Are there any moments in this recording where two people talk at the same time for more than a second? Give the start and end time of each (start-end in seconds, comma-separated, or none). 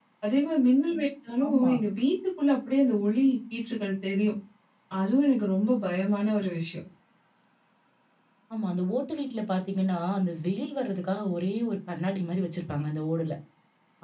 none